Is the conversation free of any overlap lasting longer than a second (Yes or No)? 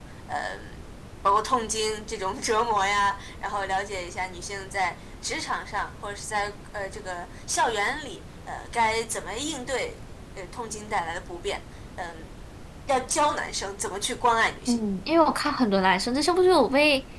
Yes